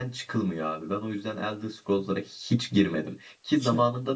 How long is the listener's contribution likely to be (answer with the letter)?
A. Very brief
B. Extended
A